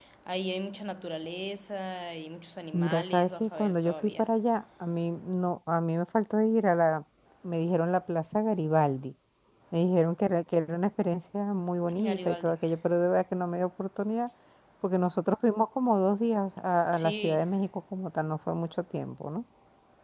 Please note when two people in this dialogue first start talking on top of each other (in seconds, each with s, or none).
2.7 s